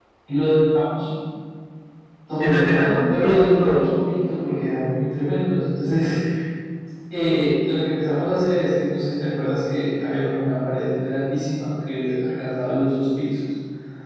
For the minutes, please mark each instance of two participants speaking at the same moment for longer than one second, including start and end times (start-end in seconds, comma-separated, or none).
2.4-4.0